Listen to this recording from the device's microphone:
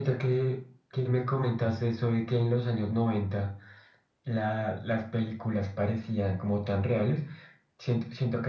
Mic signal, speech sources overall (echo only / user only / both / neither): echo only